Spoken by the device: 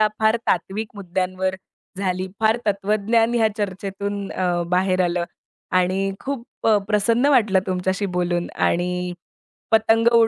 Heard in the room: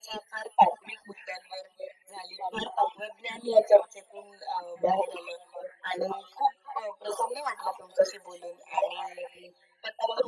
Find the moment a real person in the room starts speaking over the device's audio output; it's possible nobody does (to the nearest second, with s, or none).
none